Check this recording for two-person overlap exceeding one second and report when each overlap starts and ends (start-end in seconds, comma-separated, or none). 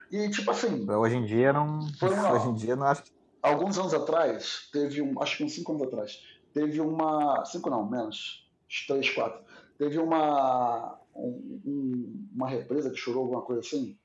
none